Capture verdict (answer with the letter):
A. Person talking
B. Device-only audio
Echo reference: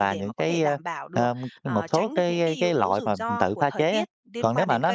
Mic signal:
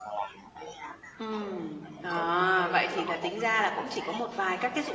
A